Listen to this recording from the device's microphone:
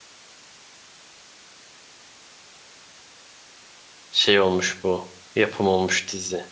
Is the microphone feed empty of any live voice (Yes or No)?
No